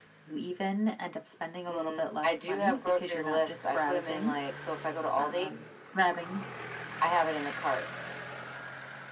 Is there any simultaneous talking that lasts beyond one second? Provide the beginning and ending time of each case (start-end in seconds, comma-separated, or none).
1.7-4.4